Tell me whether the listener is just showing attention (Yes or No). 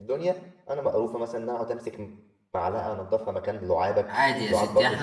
No